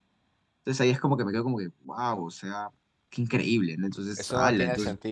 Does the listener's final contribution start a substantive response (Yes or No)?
Yes